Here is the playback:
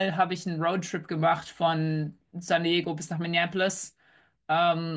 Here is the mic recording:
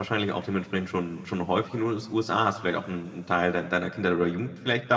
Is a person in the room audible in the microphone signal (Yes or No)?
Yes